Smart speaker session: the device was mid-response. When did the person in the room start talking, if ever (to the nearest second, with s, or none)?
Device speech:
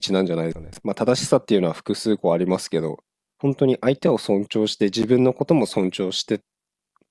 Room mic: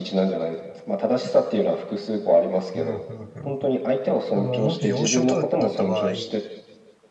3 s